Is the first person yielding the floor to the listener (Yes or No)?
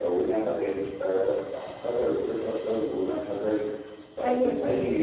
No